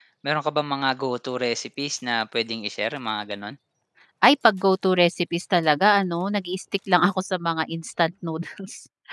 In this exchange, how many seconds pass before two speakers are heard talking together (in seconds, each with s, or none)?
none